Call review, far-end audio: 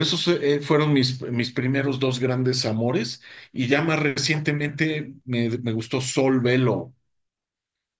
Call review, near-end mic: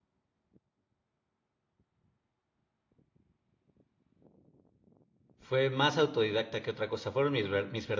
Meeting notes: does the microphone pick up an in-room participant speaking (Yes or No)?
Yes